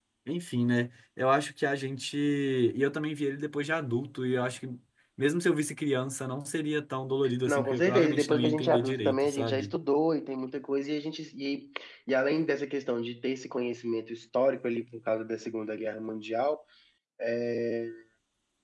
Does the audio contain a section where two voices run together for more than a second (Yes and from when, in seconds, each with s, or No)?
Yes, from 7.5 s